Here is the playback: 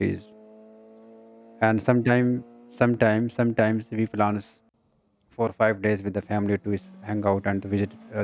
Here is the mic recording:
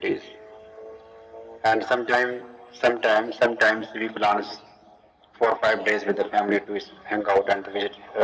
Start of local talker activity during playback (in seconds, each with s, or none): none